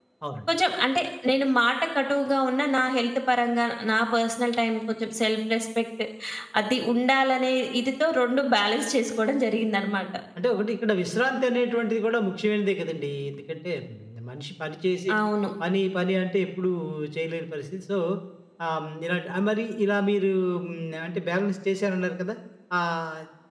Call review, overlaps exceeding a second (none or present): none